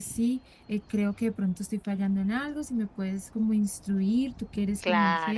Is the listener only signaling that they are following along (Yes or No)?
No